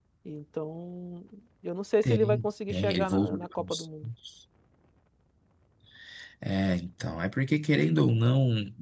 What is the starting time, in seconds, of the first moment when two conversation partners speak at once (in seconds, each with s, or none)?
2.0 s